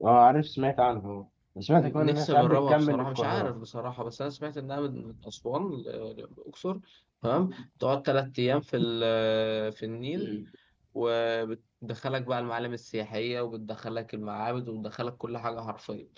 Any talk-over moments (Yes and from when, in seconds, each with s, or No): Yes, from 1.8 s